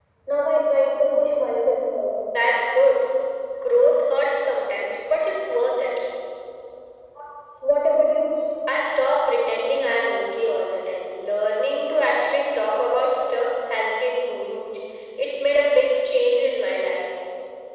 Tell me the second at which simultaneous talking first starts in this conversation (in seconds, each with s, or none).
none